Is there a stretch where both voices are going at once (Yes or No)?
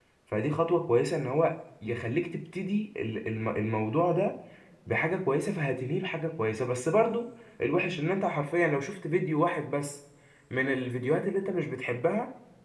No